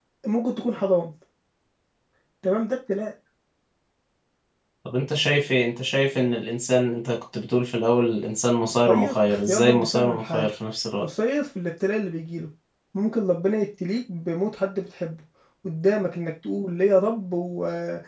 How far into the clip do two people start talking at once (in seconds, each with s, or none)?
8.9 s